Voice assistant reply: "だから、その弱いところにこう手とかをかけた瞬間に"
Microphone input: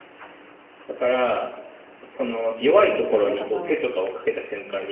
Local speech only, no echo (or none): え、ダメかな